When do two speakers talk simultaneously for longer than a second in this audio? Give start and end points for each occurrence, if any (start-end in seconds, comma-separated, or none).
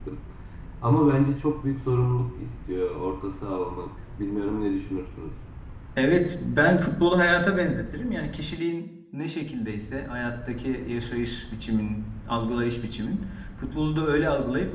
none